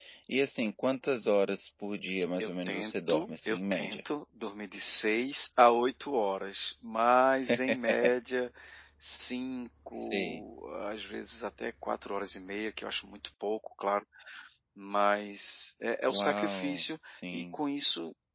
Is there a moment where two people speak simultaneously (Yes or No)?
Yes